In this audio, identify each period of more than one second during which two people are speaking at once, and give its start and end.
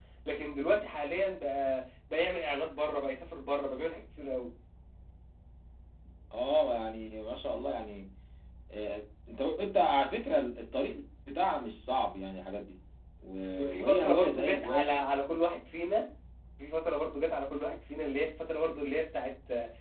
13.6-14.9

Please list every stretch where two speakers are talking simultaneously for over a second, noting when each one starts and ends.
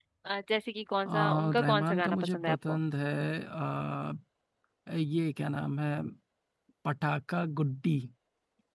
1.1-2.8

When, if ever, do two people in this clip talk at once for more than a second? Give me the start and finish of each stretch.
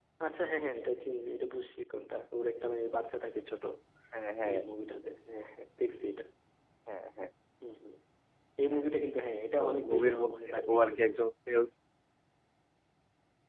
9.6-11.2

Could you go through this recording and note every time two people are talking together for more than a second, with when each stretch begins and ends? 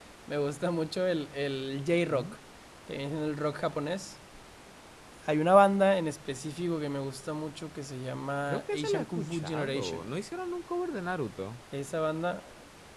8.5-10.0

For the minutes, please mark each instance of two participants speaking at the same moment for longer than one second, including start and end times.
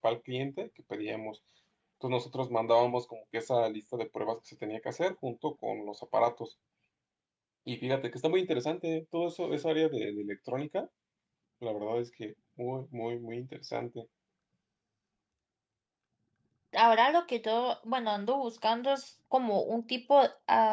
none

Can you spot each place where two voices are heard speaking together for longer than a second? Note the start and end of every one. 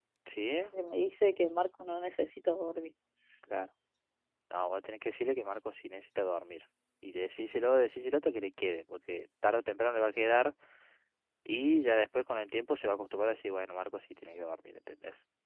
none

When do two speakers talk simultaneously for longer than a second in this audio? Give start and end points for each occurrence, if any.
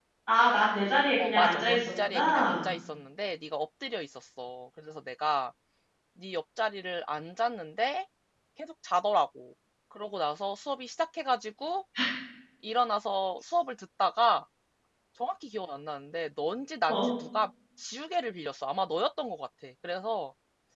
1.2-2.6

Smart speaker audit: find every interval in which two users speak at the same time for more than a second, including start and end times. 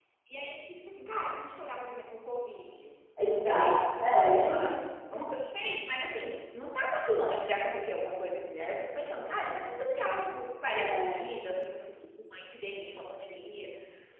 3.4-4.7

